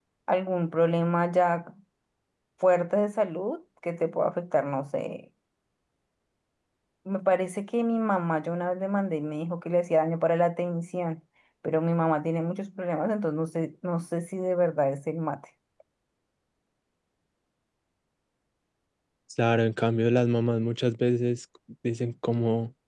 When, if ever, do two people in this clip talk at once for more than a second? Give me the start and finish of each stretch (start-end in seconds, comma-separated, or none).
none